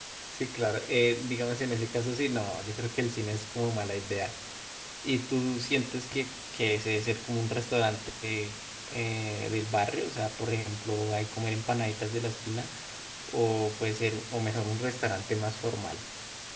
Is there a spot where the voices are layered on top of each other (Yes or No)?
No